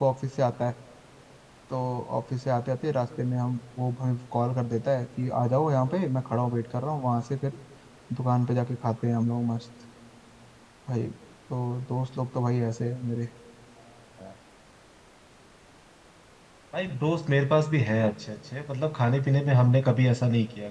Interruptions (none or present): none